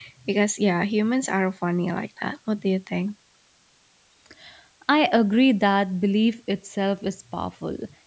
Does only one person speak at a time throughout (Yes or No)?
Yes